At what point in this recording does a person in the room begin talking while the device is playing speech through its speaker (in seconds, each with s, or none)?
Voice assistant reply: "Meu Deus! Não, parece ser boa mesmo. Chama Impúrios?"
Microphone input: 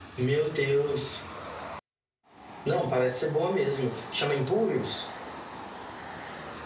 none